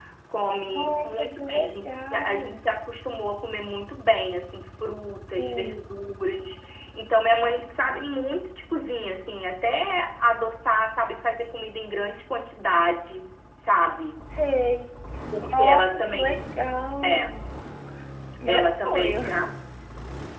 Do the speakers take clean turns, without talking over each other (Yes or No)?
No